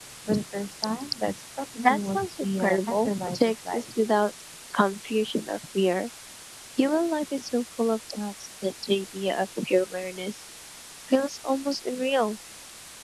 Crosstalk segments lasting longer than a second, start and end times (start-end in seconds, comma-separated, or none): 1.9-3.8